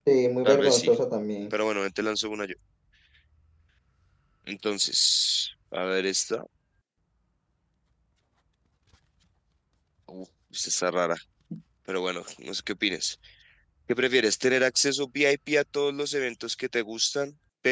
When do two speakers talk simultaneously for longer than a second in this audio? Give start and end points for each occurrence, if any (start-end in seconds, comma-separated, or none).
none